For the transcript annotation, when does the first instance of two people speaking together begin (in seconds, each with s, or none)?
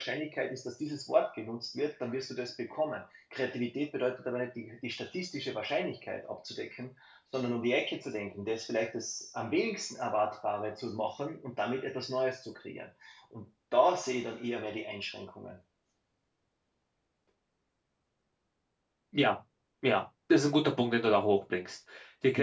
none